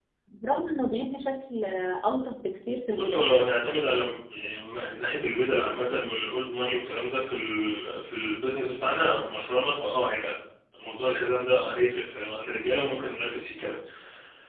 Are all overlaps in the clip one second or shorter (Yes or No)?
Yes